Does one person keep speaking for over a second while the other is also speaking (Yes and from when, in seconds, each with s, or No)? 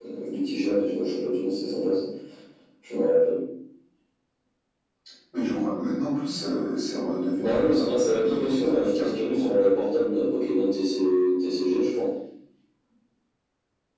Yes, from 7.3 s